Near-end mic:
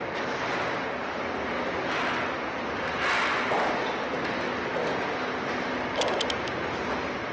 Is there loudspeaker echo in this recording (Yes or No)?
No